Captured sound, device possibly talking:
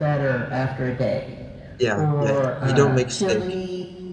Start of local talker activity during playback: 2 s

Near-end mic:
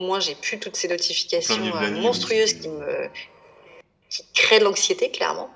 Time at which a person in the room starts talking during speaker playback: 1 s

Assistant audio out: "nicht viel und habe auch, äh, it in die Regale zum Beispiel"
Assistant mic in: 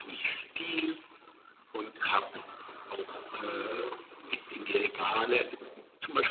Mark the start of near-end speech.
none

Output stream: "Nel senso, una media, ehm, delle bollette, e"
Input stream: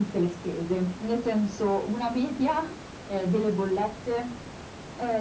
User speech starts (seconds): none

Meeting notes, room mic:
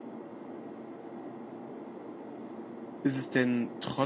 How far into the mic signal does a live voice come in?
3 s

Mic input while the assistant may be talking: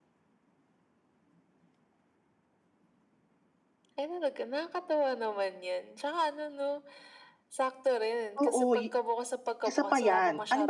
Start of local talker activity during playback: 8 s

